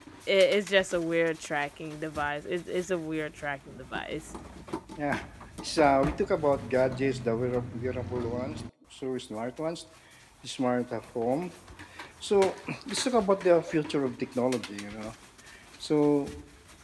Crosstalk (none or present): none